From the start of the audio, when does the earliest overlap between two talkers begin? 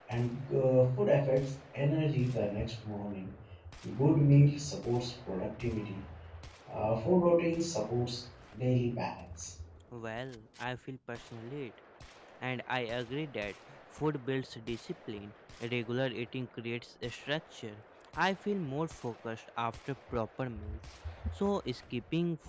none

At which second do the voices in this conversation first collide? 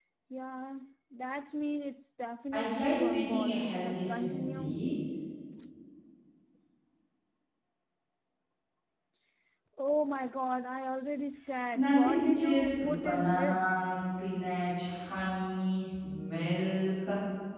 3 s

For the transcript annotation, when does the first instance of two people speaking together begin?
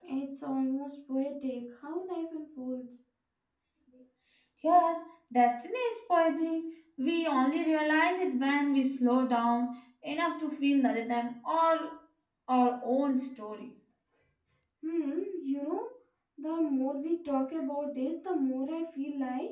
none

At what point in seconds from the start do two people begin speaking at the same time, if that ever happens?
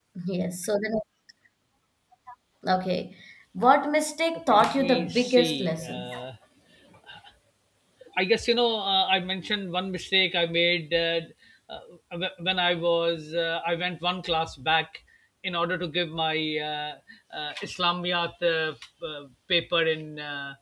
5 s

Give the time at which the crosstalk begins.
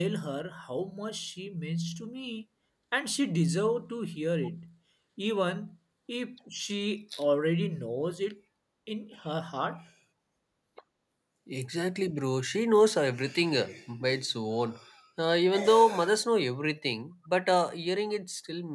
none

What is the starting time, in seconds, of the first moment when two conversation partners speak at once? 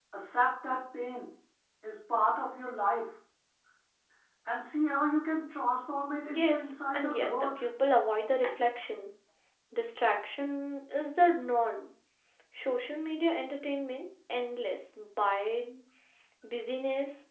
6 s

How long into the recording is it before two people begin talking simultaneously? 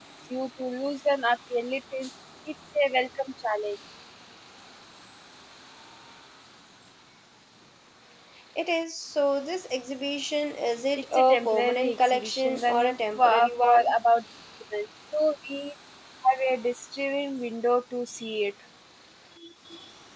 11 s

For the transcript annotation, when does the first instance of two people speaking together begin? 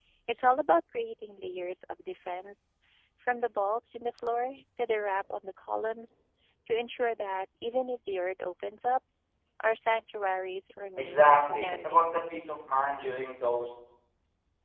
11 s

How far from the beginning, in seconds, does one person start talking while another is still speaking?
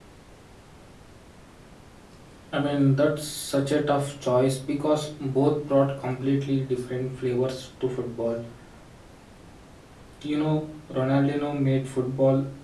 none

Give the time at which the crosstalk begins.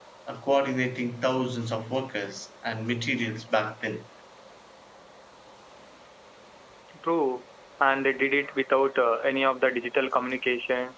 none

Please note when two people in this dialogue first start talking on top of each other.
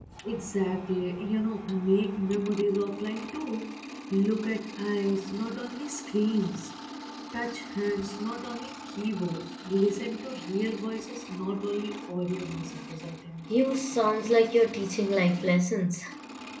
none

